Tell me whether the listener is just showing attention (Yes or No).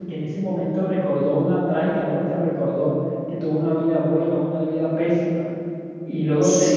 Yes